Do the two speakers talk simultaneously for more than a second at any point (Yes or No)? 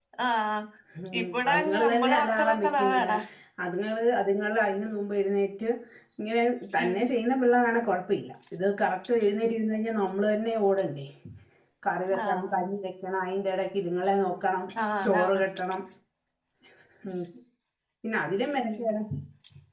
Yes